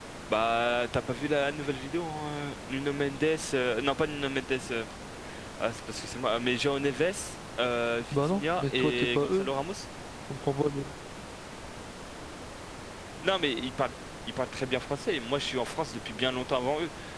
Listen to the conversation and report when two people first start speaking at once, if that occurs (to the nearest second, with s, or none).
8 s